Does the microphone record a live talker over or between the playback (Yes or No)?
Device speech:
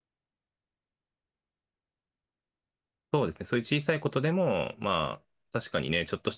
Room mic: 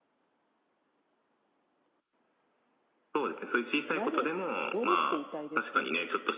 Yes